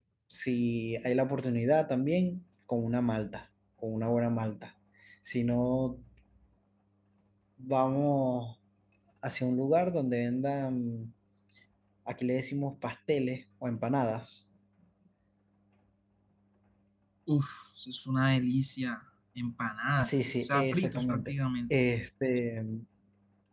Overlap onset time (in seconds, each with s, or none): 20.0 s